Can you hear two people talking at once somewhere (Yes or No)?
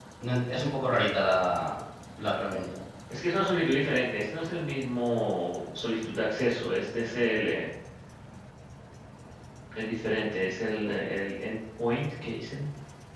No